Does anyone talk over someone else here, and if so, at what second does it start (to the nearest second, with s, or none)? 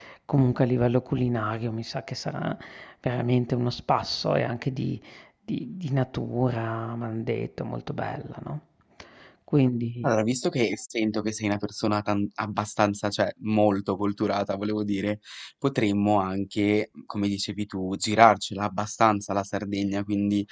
none